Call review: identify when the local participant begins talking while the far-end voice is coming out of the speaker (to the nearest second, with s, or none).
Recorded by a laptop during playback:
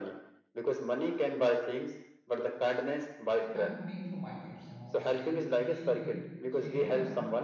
3 s